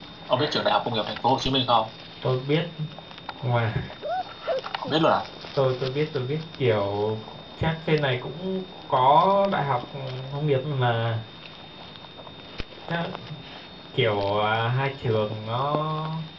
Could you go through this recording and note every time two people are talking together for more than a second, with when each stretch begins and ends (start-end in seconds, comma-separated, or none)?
none